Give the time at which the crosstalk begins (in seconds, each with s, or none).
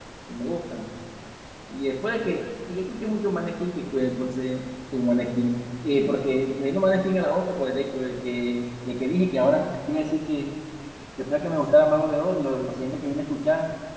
none